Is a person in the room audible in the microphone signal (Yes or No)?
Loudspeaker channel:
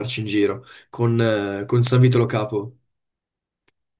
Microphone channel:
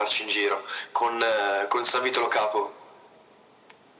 No